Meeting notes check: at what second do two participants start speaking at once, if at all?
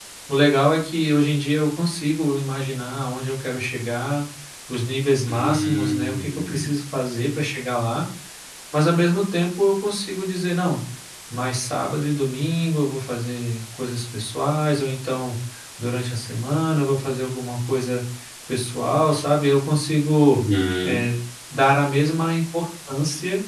5.3 s

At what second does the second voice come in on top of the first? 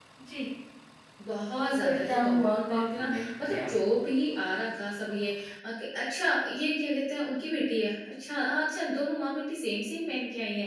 1.6 s

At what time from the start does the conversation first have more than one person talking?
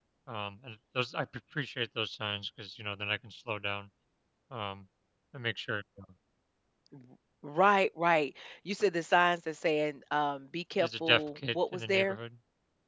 10.8 s

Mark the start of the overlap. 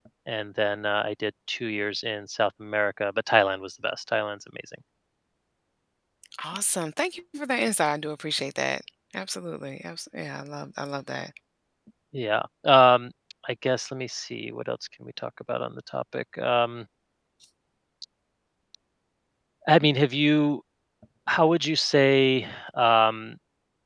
none

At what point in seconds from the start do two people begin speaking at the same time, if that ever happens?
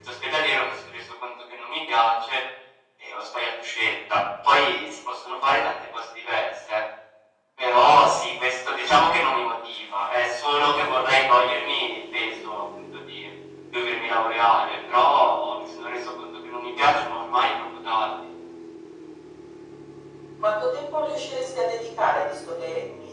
none

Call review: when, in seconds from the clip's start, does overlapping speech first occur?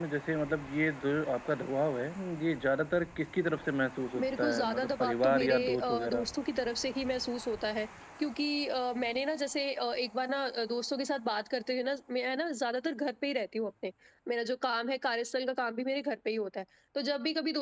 4.2 s

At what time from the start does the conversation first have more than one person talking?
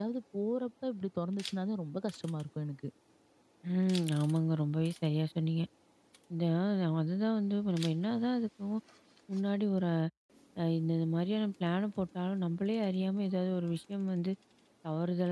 none

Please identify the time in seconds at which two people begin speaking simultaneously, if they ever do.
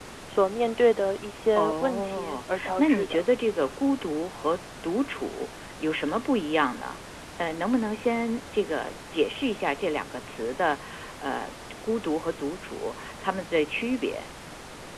1.6 s

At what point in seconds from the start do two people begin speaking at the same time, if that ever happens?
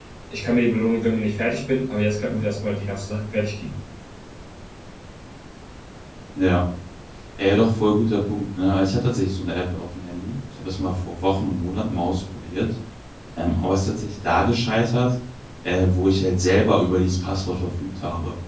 none

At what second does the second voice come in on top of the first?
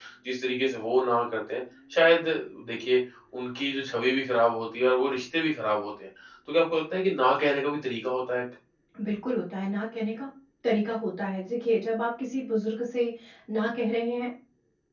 none

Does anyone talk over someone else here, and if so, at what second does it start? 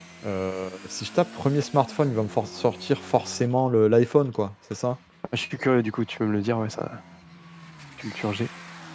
none

